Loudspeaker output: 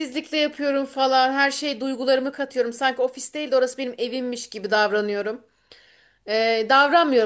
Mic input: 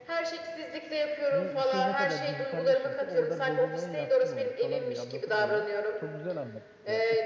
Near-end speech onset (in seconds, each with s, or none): 1.3 s